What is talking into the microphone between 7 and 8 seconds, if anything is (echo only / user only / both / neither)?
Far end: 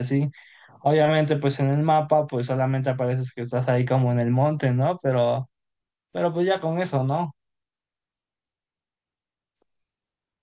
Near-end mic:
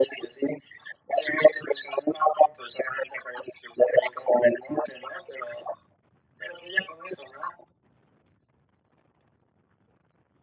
echo only